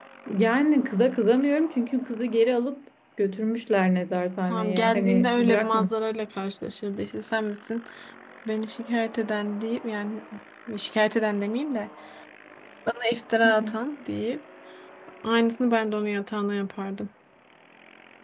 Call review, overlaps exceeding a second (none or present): present